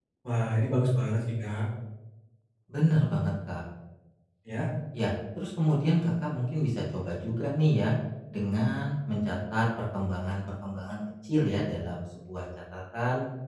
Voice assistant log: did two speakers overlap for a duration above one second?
No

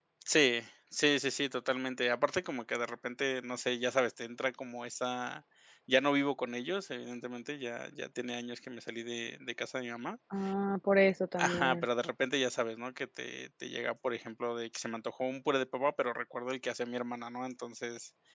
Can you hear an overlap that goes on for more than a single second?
No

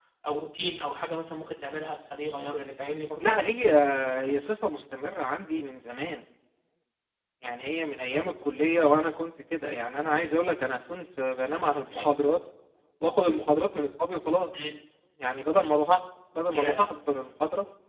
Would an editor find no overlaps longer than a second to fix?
Yes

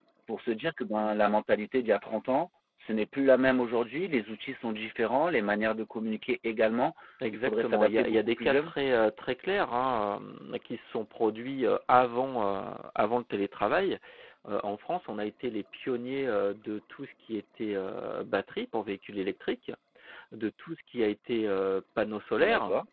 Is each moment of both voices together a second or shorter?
No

